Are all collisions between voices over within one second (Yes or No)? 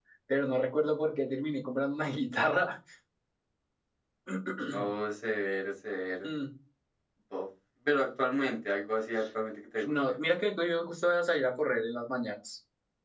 Yes